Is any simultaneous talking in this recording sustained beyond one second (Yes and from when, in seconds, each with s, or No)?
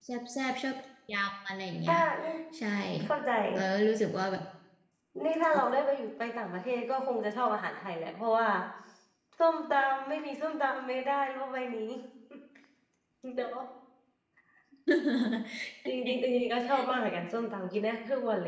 No